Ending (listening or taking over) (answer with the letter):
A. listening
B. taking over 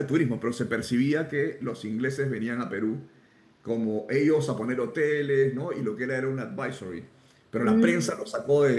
A